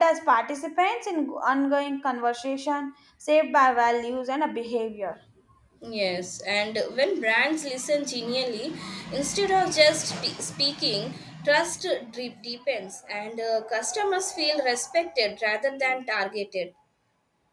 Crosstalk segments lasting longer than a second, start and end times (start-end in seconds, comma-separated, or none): none